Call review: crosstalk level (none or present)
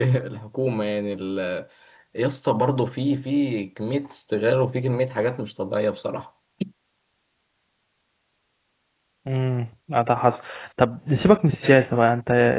none